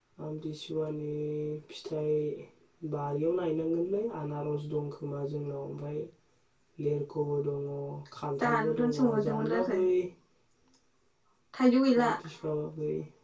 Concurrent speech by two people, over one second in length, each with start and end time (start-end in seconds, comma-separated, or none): 8.4-9.8